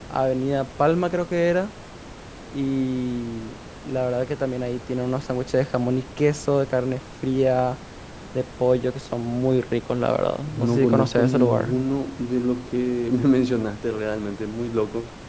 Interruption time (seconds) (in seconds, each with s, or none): 10.5 s